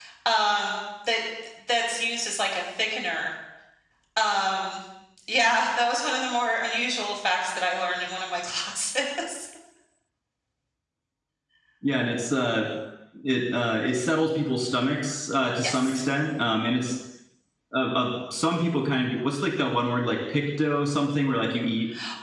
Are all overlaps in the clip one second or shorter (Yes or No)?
Yes